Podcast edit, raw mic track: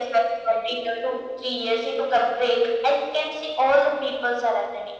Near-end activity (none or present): none